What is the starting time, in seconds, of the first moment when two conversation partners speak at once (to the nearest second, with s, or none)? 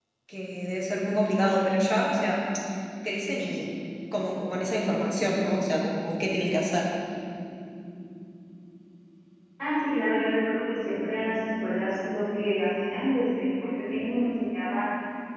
none